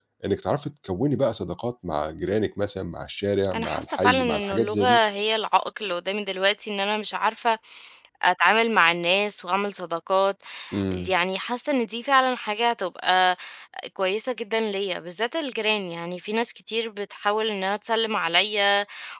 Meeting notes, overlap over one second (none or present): present